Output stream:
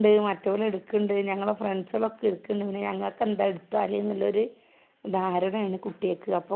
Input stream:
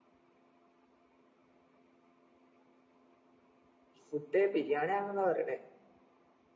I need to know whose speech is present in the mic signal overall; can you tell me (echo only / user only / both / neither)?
user only